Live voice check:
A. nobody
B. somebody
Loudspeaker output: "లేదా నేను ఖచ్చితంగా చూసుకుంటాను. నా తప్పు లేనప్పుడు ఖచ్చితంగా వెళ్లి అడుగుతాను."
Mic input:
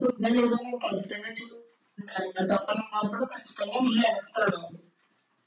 A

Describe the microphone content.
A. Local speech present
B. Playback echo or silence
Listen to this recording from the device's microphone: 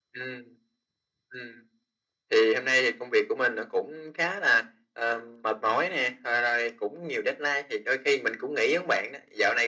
B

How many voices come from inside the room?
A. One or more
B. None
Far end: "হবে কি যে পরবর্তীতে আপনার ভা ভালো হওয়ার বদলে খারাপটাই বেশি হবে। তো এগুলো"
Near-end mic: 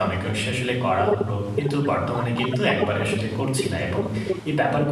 A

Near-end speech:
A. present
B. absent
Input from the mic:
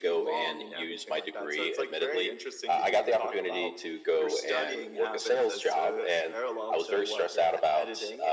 B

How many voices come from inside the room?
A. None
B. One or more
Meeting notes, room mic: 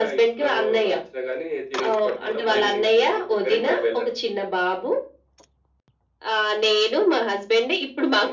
B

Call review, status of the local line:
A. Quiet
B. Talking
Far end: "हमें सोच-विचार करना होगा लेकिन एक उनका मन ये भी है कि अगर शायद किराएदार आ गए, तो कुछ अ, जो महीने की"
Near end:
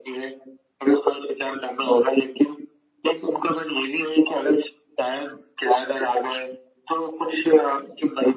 A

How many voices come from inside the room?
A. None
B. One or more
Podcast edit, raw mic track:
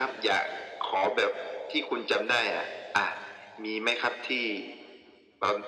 A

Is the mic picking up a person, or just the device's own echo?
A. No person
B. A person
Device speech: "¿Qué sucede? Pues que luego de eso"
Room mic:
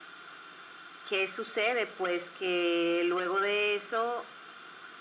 A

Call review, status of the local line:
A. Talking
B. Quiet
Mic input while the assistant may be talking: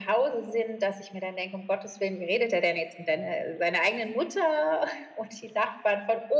B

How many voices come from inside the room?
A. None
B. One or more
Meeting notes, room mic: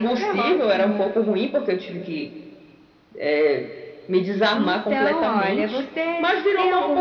A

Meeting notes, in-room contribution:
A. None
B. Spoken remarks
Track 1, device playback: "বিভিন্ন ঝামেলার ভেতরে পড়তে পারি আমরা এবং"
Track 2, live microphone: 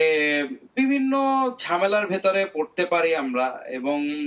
A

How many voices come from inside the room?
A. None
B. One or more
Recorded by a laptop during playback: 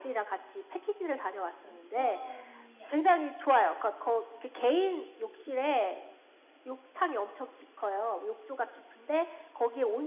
B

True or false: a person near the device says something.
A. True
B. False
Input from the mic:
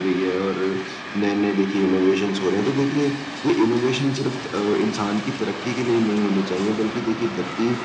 B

